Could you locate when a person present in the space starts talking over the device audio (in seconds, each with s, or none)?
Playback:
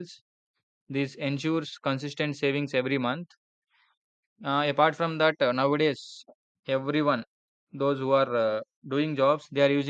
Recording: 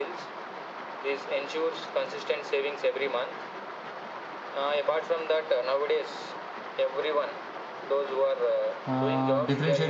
8.9 s